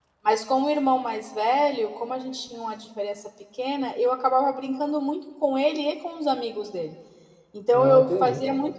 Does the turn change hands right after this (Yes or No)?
No